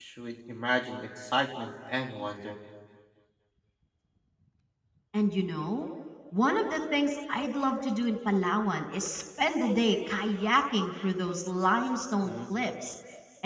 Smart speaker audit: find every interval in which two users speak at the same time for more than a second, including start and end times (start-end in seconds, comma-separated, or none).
none